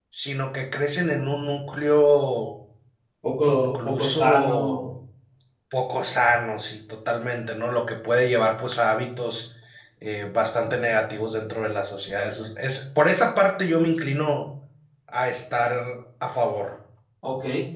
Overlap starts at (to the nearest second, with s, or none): 3 s